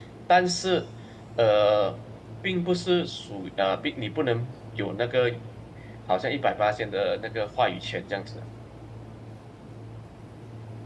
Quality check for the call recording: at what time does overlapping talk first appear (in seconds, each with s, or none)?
none